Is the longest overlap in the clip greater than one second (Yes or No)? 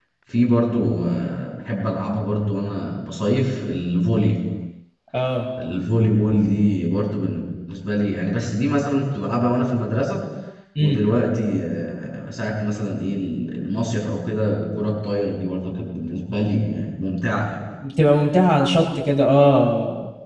No